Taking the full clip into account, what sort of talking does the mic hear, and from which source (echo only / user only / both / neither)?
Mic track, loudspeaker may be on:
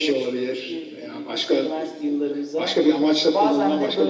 echo only